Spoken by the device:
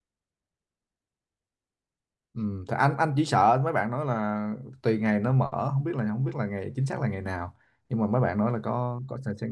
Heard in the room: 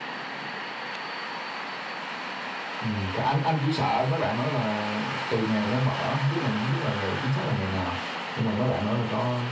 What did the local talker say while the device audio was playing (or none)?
none